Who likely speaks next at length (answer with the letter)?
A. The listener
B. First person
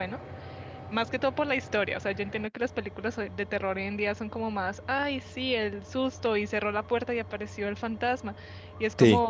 B